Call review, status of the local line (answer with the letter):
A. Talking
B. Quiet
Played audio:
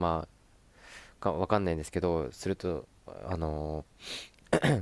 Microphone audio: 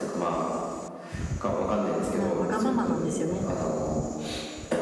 A